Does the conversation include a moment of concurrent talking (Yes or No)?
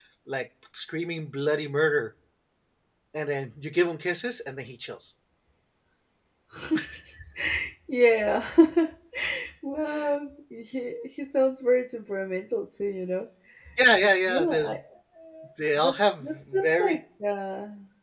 Yes